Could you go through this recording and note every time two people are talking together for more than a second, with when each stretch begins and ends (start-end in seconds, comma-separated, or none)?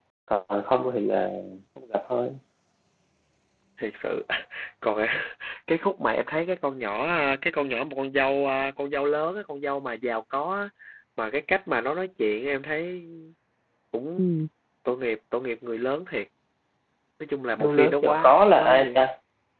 17.6-19.0